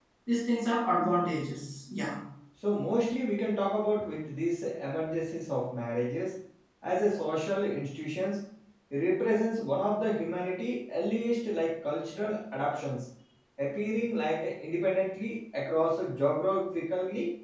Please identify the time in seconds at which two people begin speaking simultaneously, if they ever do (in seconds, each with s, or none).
none